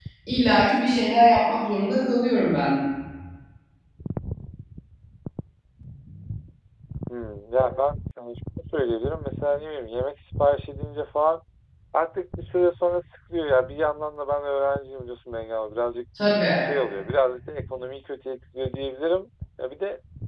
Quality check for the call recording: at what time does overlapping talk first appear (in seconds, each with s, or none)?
none